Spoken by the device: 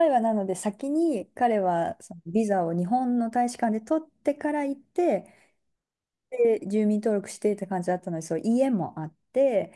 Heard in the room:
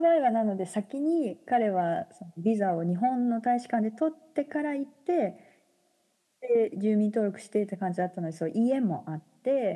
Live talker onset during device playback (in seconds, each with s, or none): none